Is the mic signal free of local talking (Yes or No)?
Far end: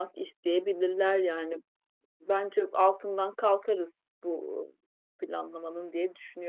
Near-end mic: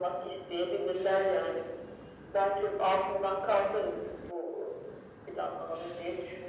Yes